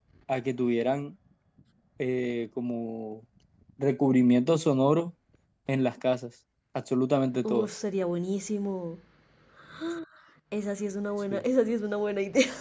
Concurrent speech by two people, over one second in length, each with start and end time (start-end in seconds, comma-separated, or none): none